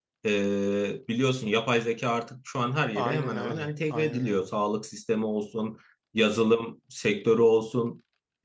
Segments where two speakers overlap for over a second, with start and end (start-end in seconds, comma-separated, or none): 3.0-4.5